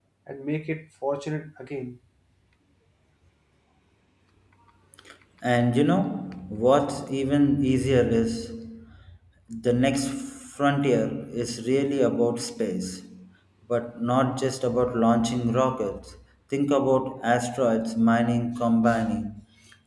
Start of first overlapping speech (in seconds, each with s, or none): none